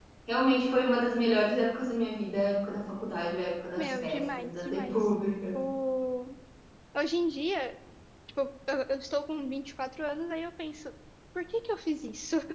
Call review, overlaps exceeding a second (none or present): present